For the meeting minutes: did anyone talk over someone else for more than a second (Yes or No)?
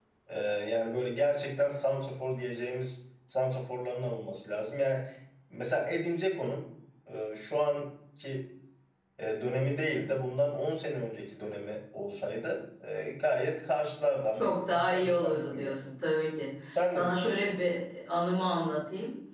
Yes